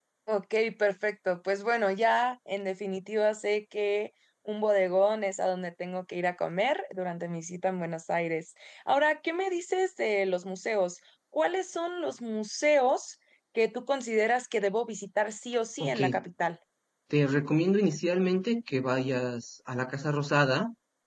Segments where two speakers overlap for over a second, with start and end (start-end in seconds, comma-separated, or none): none